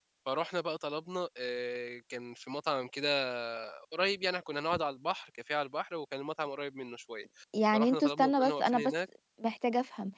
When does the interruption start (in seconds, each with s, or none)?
7.7 s